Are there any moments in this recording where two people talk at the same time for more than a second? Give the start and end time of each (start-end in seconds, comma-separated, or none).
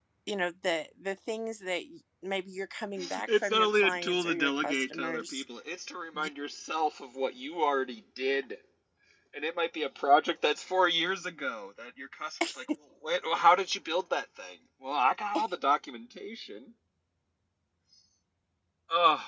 3.3-5.4